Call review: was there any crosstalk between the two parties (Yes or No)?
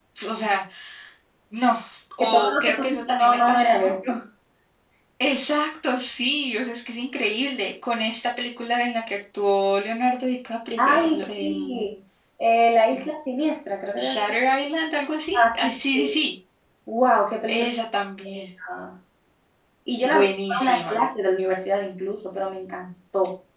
Yes